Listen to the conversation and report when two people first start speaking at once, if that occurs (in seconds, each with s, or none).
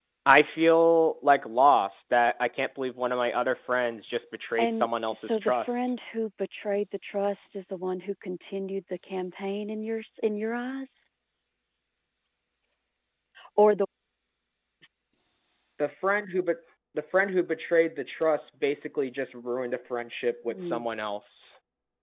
4.6 s